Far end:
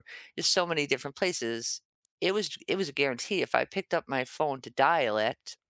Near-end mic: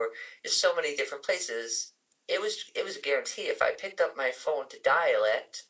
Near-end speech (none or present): none